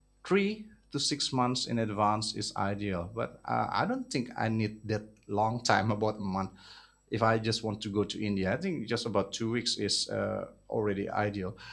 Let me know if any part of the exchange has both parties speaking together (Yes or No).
No